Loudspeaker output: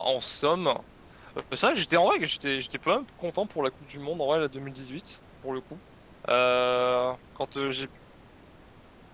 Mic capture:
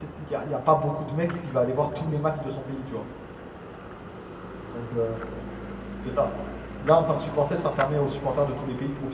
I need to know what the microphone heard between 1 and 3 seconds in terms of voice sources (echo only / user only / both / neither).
user only